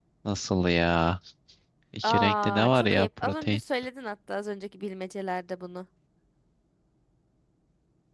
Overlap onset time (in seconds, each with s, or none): 2.0 s